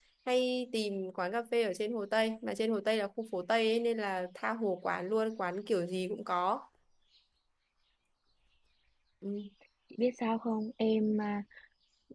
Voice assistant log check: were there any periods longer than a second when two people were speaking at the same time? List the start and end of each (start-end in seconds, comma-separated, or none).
none